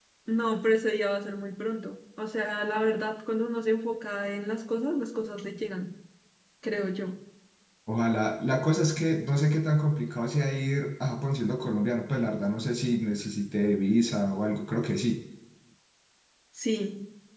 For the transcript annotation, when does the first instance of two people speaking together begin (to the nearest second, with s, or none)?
none